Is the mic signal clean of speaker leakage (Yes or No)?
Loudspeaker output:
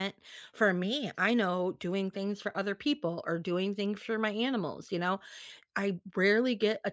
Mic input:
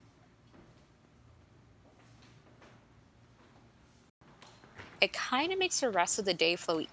Yes